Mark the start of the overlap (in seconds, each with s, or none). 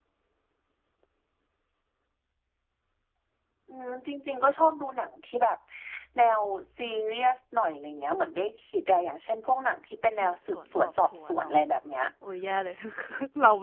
10.1 s